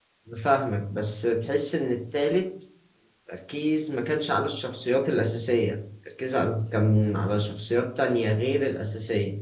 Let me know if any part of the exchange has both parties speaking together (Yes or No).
No